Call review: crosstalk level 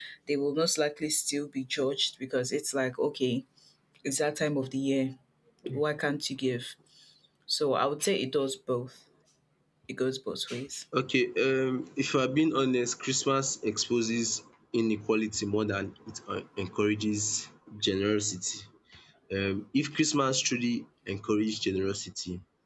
none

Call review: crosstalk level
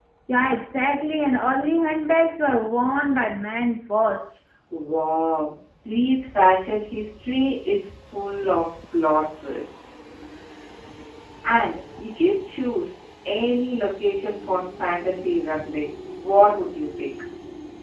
none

